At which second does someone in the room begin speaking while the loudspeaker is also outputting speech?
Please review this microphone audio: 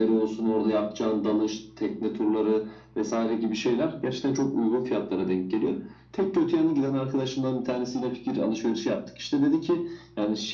none

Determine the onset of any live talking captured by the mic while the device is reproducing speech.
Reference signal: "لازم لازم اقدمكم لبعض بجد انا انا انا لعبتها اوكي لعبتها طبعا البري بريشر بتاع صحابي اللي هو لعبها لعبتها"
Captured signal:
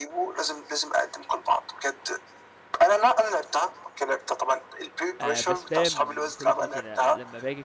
5 s

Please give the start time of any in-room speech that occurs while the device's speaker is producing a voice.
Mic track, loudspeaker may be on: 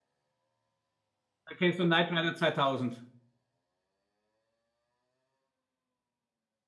1 s

